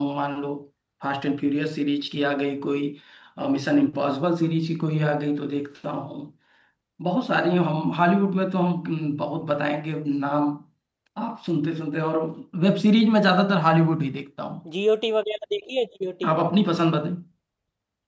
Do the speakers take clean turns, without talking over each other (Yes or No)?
Yes